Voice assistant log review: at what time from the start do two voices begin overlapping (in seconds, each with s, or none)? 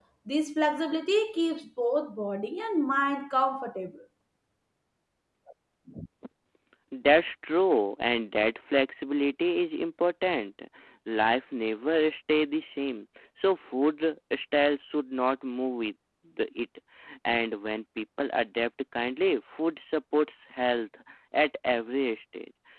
none